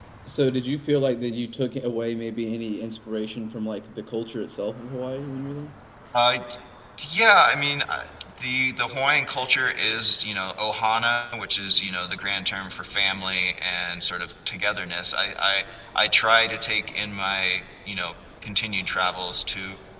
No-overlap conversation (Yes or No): Yes